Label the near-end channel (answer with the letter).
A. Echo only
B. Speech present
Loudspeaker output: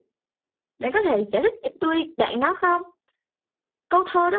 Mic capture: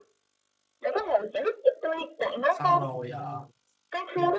B